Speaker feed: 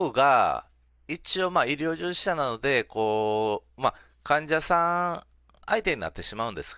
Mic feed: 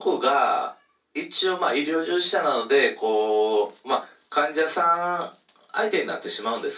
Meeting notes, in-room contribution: none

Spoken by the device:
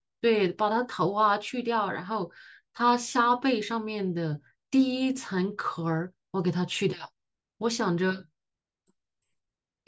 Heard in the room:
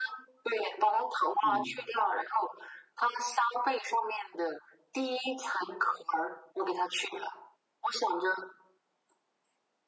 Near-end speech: present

